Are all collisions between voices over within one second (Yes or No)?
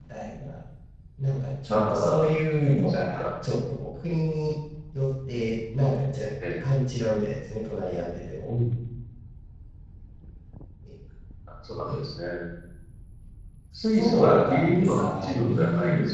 No